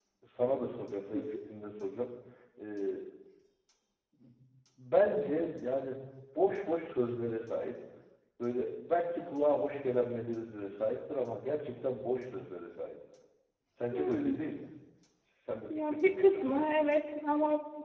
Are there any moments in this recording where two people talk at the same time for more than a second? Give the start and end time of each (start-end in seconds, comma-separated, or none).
15.7-16.9